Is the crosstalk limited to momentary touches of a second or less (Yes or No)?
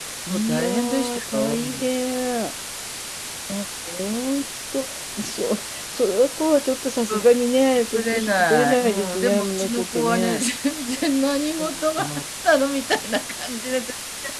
No